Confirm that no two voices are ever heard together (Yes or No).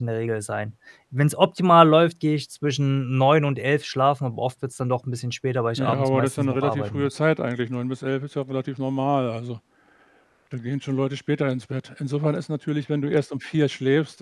No